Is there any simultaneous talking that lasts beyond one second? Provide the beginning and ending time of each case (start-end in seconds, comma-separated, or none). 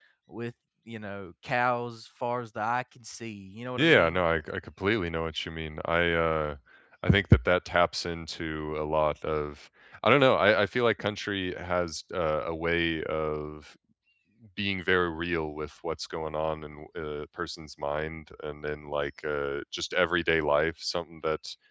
none